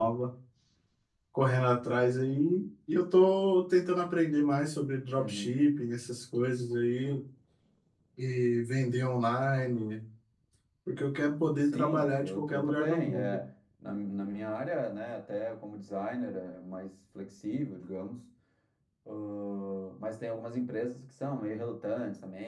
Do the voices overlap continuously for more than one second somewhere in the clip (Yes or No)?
Yes